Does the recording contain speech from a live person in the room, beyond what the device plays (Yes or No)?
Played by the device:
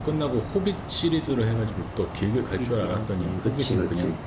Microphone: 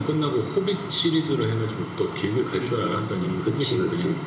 No